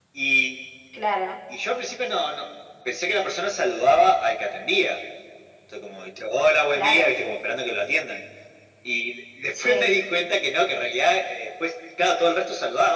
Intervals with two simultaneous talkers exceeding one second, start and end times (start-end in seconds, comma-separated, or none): none